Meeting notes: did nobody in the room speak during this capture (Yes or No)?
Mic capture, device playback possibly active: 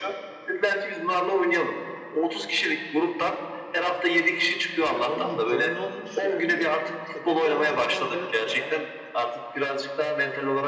No